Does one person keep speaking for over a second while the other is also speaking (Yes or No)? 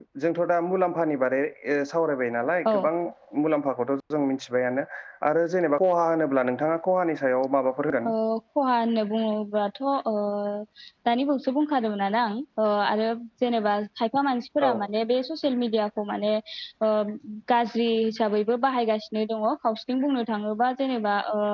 No